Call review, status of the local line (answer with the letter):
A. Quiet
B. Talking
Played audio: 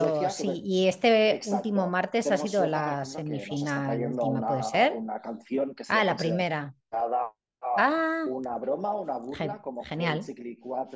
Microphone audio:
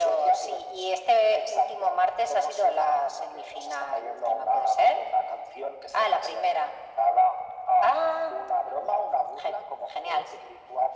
A